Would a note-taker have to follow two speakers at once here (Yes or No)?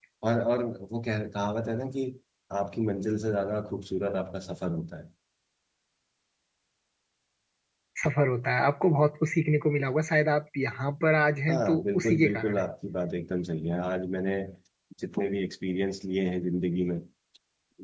Yes